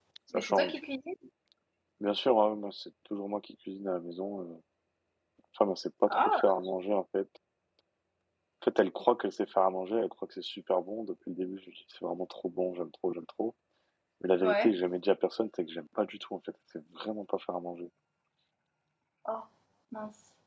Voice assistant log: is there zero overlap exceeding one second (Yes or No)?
Yes